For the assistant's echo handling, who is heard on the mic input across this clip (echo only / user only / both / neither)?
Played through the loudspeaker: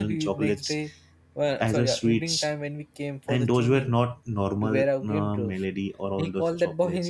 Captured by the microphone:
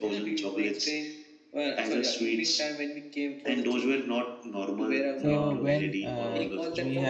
both